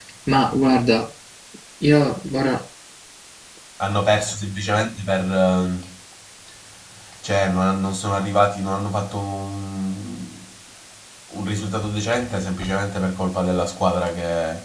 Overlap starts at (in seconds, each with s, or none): none